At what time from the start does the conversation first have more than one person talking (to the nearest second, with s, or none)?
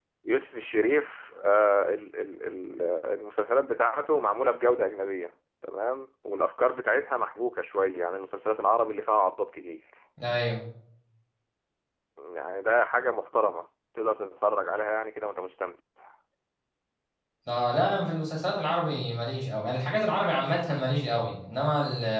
none